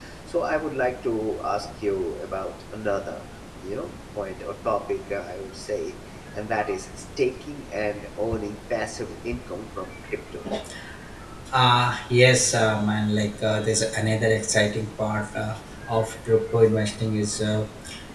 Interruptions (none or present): none